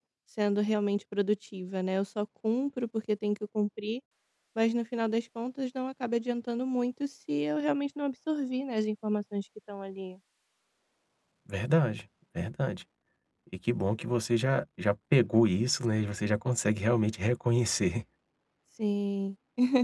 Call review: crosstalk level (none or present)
none